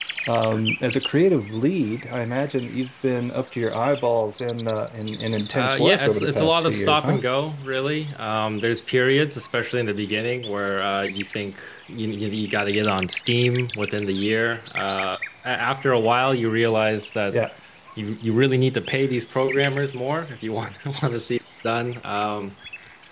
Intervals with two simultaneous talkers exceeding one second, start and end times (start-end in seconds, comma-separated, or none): 5.5-7.2